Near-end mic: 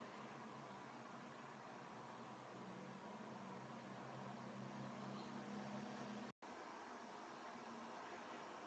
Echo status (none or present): none